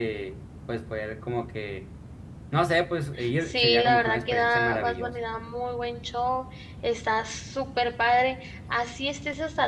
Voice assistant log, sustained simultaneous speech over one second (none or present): present